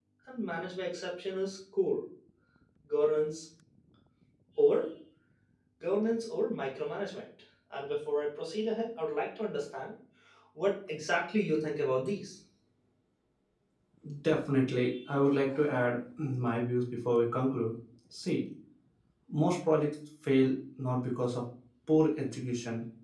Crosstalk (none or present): none